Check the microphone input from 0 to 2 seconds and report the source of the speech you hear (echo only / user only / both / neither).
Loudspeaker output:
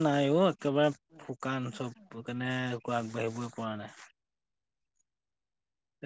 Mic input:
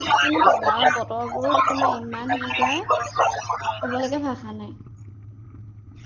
both